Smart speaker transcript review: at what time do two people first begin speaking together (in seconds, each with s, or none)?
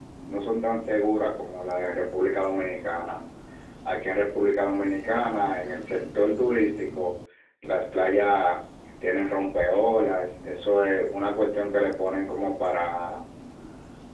none